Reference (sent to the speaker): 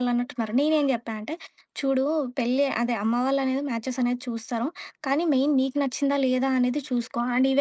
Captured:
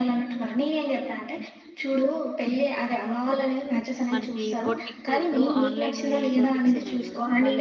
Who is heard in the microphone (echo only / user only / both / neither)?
both